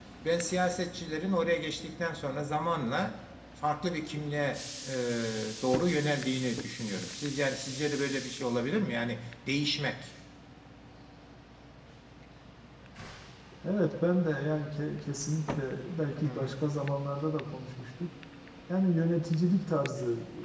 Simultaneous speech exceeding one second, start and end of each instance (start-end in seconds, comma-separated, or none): none